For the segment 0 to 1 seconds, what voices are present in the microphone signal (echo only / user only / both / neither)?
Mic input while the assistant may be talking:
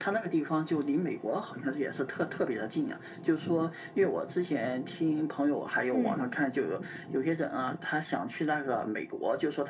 echo only